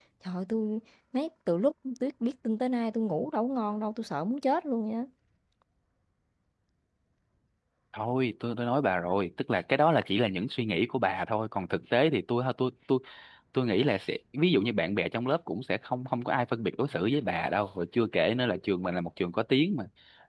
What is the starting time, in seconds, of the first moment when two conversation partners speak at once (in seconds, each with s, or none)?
none